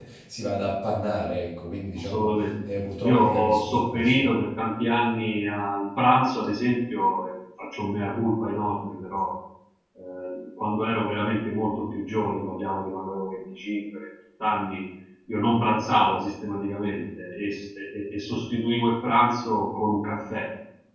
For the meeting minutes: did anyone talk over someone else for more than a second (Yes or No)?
Yes